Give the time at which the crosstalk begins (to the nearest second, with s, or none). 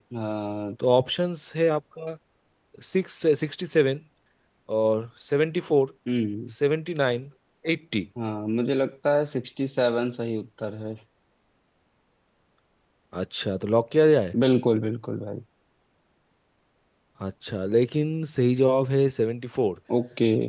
none